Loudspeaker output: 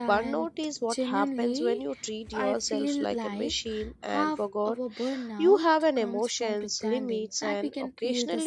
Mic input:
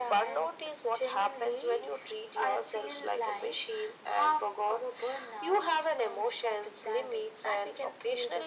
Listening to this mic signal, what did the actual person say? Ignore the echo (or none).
none